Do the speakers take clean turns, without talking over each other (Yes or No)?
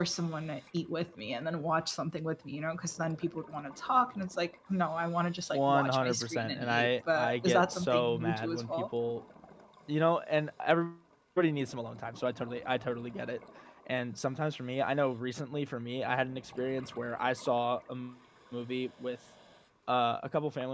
No